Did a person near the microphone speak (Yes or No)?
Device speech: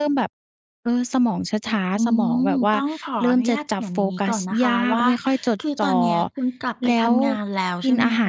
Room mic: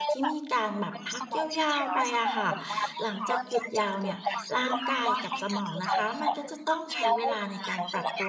Yes